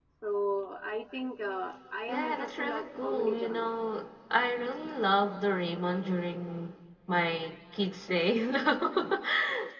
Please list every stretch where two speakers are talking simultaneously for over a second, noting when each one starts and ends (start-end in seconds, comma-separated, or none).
2.1-3.7